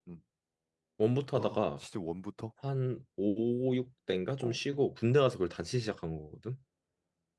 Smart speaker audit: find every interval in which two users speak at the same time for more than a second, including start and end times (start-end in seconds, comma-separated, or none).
none